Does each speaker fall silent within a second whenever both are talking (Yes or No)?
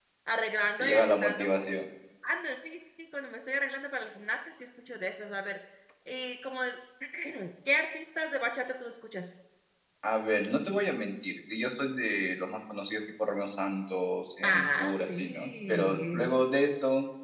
No